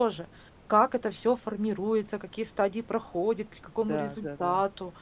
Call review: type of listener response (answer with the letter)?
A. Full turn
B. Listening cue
B